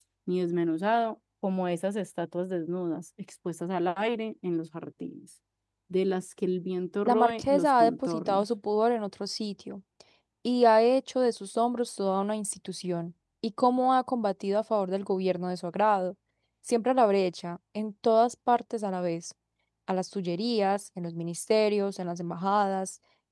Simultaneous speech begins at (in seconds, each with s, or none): 7.0 s